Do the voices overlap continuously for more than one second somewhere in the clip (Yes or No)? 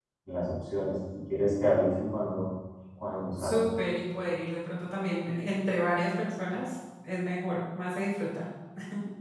No